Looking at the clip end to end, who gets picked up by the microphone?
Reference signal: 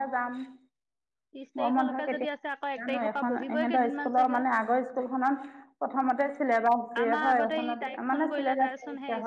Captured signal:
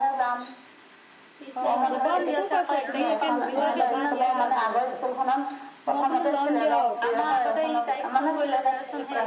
both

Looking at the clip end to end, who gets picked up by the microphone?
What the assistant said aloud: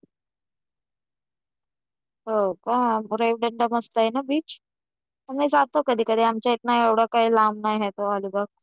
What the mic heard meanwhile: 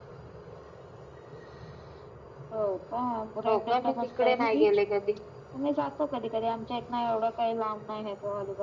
both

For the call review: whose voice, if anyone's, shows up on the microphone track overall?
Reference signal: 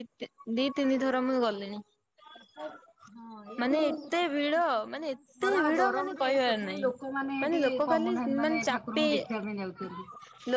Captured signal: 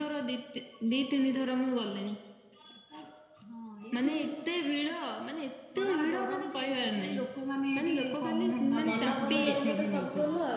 both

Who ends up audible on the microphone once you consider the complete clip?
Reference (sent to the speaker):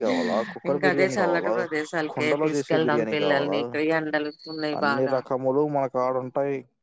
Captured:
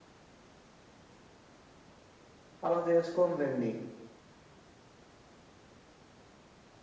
user only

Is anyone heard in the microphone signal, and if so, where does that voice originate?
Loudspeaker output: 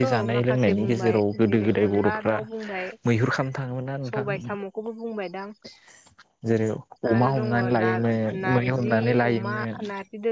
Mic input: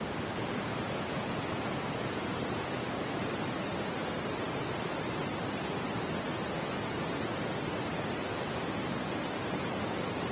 neither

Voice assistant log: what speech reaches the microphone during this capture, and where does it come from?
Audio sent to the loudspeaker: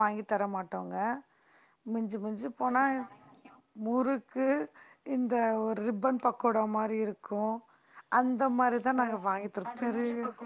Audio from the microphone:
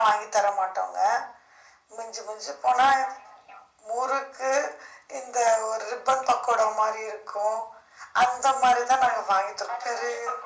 echo only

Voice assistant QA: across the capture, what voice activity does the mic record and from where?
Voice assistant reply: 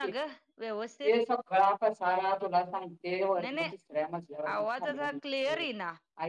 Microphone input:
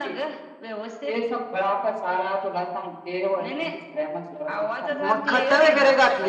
both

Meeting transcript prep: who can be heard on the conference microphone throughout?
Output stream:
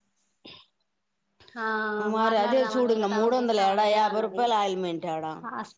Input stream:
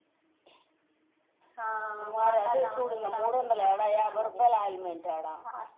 echo only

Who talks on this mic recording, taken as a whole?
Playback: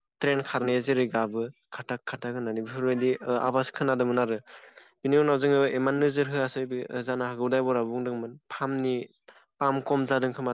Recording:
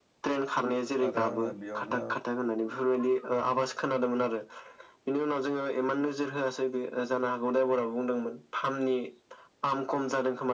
both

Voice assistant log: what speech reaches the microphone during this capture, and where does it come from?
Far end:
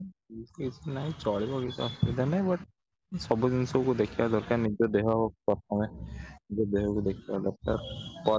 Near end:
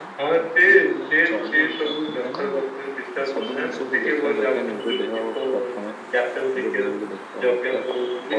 both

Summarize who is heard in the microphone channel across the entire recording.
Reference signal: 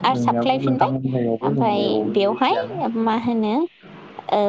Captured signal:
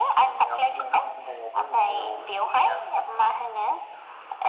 echo only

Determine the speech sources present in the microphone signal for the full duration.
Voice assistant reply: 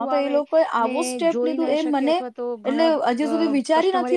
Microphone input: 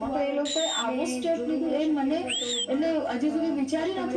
echo only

